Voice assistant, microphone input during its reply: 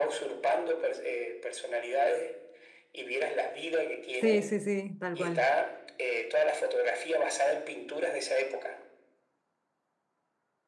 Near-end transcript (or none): Sí, sí, sí, tal cual.